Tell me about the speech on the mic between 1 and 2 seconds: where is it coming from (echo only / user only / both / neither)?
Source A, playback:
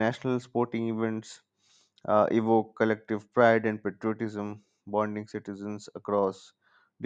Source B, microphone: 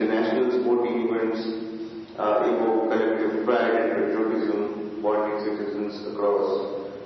echo only